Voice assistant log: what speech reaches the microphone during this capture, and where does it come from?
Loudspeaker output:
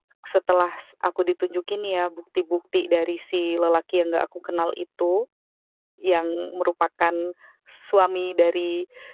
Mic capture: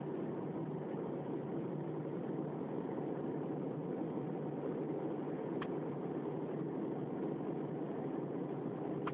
neither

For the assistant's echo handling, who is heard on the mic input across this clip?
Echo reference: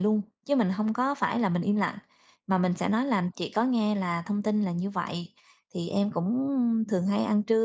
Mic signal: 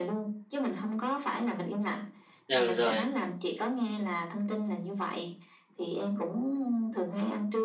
both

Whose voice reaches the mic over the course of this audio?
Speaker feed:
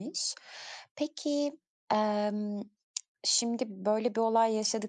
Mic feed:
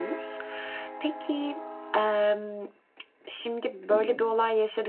both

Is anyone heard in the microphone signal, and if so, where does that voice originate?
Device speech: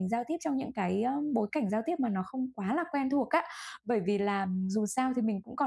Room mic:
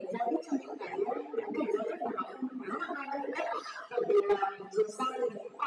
echo only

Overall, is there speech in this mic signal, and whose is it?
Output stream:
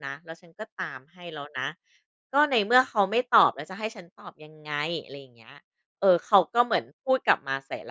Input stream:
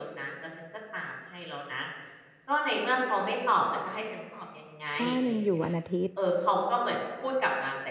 both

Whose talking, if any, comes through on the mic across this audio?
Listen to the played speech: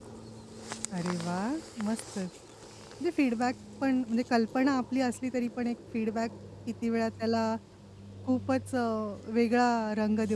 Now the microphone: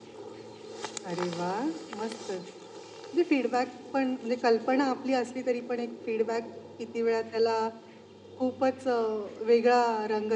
echo only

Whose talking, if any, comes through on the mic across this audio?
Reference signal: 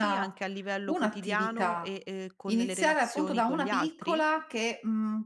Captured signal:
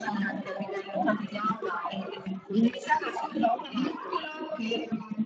echo only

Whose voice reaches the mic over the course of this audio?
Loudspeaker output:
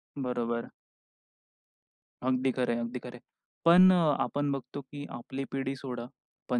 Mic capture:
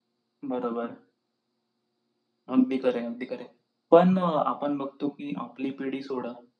echo only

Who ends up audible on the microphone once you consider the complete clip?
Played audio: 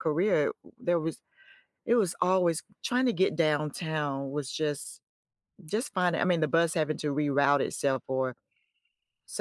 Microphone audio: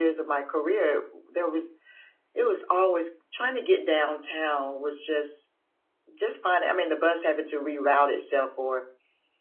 echo only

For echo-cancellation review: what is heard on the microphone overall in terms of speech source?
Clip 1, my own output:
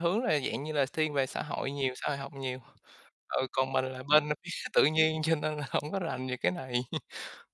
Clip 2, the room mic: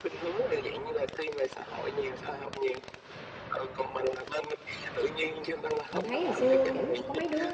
both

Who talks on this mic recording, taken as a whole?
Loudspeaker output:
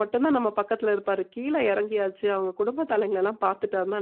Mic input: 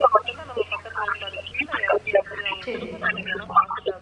both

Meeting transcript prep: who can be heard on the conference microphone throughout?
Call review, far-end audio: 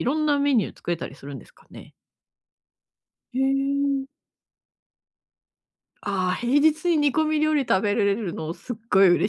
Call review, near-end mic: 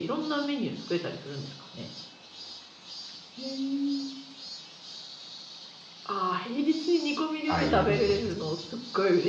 both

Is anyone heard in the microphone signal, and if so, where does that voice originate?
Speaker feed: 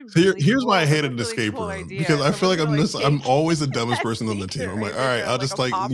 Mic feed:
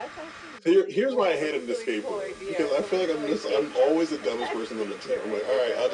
echo only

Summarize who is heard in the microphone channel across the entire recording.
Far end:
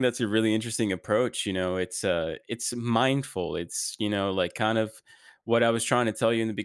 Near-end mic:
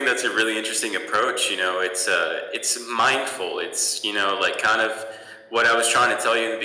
echo only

